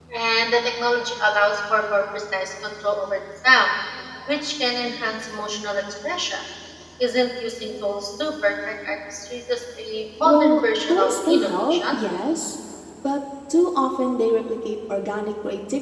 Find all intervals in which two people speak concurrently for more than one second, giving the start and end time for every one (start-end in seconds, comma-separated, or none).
10.2-12.0